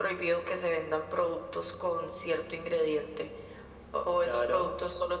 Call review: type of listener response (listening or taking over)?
listening